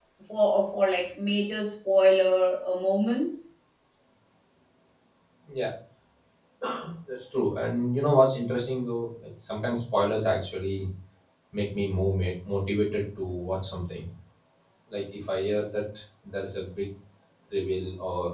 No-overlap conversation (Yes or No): Yes